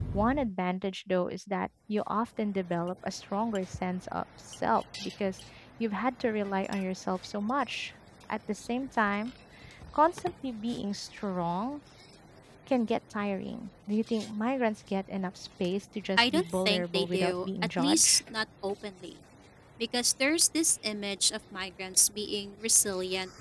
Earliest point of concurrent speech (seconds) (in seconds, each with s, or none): 16.2 s